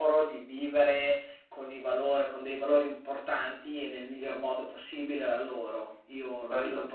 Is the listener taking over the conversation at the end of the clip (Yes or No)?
Yes